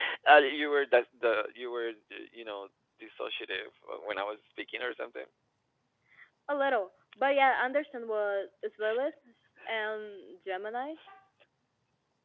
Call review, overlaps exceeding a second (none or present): none